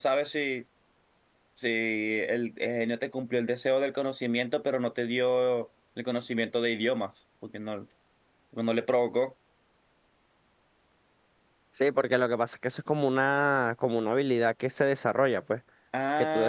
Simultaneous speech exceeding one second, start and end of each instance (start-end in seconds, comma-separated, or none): none